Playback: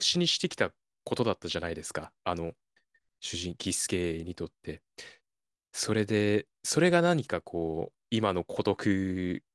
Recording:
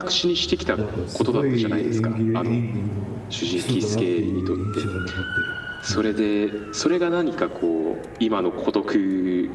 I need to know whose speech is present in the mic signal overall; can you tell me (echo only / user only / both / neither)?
both